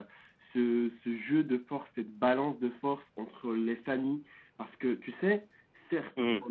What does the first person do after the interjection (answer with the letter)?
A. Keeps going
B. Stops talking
A